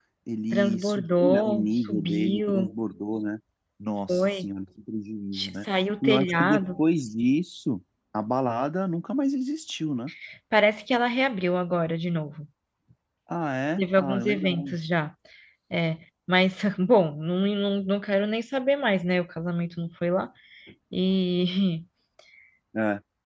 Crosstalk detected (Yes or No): Yes